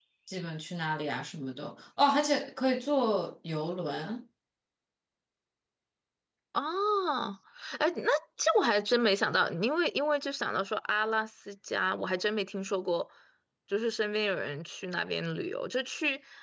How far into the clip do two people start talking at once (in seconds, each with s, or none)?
none